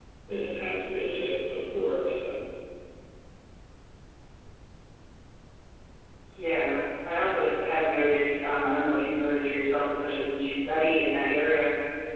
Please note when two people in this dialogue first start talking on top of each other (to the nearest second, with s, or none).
none